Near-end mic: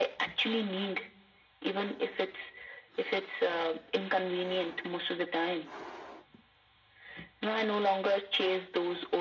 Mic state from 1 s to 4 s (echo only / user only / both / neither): echo only